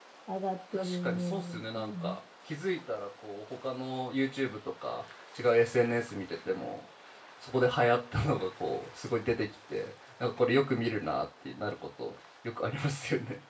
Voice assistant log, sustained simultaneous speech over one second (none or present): present